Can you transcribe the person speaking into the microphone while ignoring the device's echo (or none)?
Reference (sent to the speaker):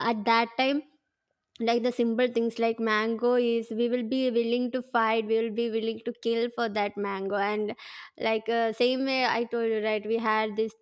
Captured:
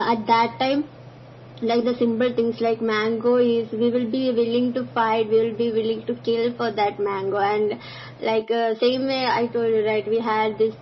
none